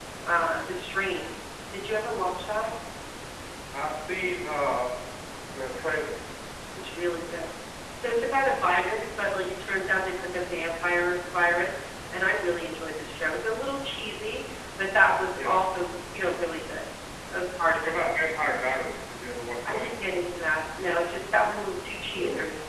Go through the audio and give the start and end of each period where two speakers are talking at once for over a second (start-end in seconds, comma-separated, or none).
none